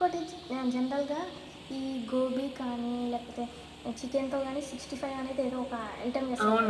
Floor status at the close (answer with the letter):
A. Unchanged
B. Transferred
A